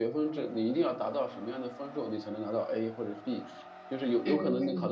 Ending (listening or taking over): listening